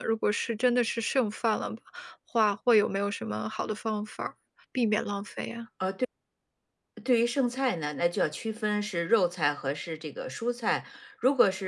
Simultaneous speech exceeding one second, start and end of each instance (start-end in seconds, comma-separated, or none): none